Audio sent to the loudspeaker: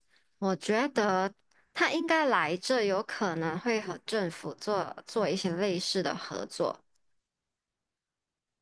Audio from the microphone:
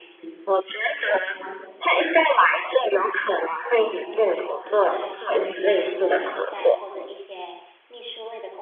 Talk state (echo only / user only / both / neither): both